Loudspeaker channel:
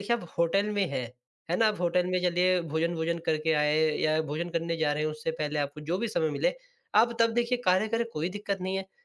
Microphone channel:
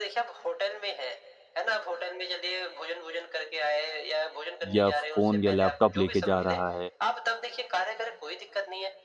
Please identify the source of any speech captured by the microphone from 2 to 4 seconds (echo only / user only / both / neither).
echo only